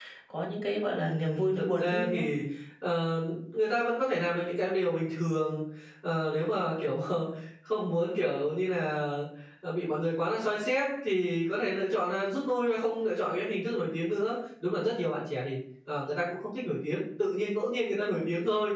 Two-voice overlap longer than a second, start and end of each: 1.0-2.2

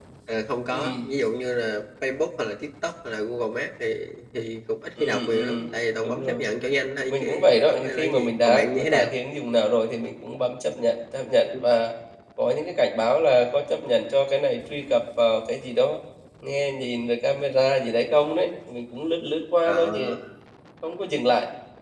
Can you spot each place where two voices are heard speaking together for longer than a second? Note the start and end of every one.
5.0-6.4, 7.1-9.1

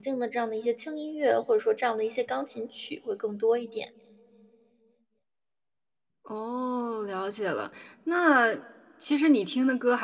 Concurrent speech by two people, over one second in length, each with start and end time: none

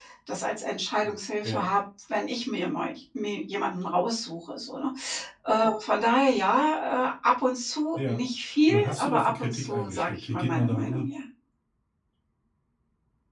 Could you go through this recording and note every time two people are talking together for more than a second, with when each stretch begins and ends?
8.7-11.1

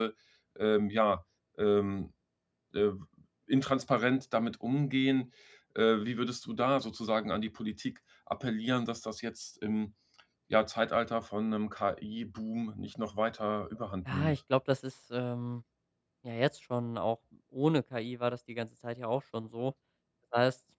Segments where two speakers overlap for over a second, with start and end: none

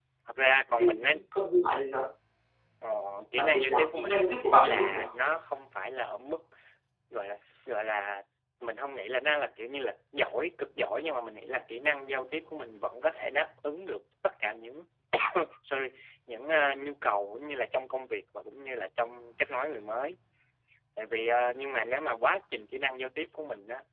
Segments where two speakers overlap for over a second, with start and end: 3.3-5.2

